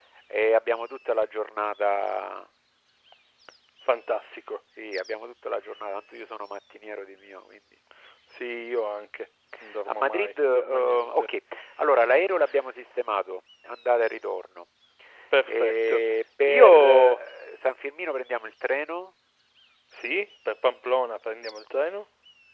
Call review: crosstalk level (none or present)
present